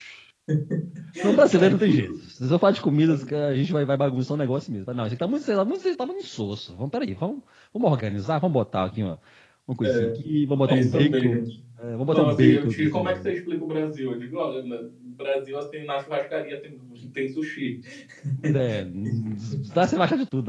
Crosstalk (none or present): present